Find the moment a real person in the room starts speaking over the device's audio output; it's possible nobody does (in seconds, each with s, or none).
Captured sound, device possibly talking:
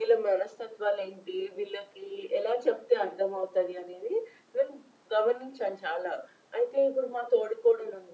none